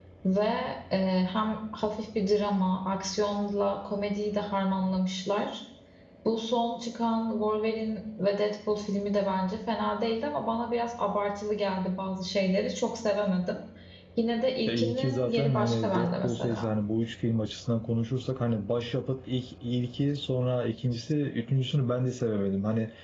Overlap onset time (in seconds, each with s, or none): 14.7 s